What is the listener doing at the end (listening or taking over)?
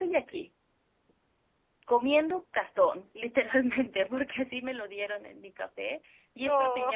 listening